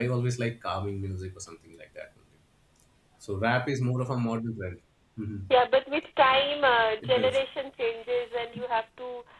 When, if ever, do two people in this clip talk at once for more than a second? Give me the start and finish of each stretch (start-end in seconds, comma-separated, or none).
none